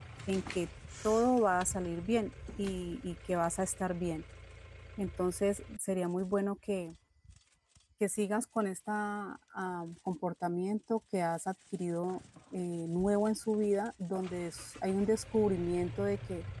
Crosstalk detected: No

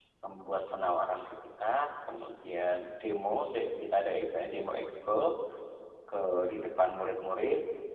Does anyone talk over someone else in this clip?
No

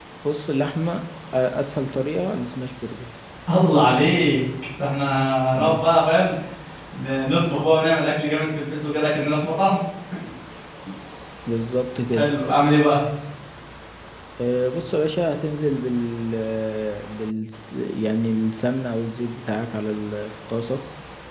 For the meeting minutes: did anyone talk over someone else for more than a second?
No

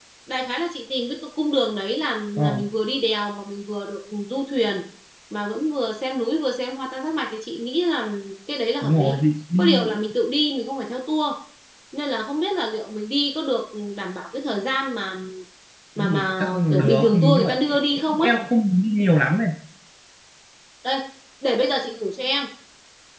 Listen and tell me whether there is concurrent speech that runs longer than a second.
Yes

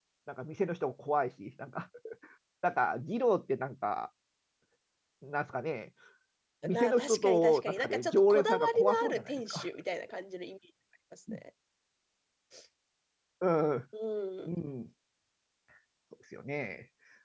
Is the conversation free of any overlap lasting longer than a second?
No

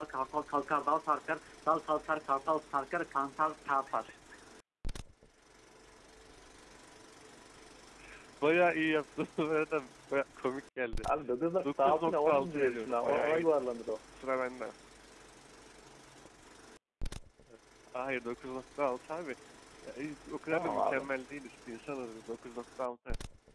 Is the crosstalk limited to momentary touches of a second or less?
No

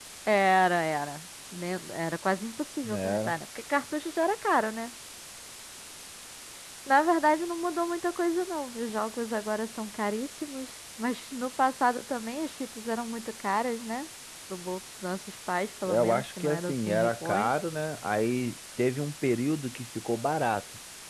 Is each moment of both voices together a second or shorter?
No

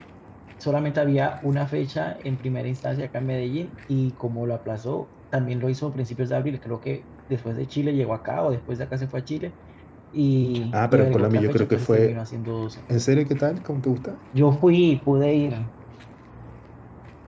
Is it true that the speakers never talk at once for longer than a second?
No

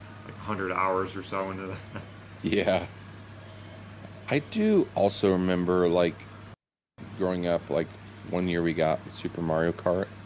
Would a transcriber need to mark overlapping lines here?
No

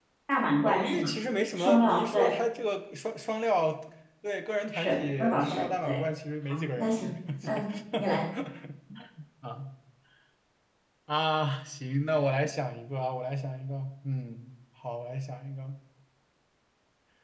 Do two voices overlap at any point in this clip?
Yes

